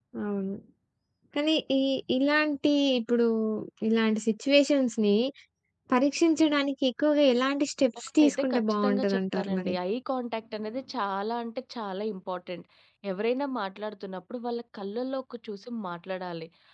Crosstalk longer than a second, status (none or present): present